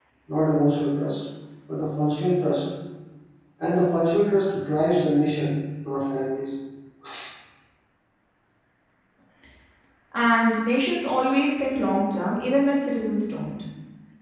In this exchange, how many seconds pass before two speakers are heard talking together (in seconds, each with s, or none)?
none